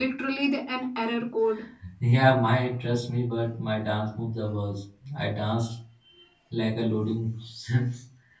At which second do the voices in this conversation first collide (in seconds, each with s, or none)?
none